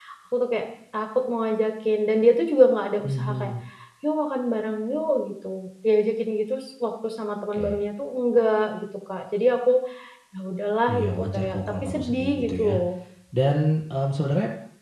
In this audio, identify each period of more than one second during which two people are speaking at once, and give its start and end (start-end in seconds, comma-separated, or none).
10.9-12.8